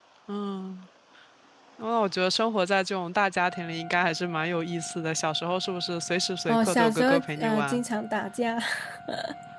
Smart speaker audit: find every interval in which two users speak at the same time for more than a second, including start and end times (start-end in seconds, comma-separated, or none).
6.5-7.8